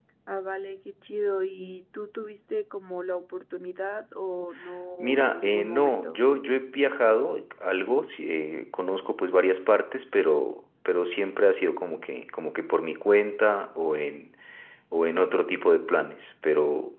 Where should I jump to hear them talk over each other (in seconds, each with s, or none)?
5.0 s